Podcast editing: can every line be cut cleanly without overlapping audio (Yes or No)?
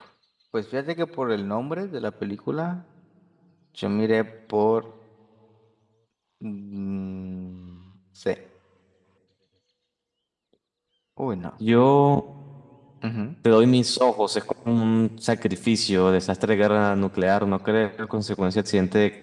Yes